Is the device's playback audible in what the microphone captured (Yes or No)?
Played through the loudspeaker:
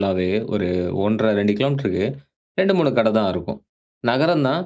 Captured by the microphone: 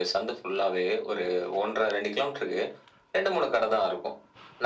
Yes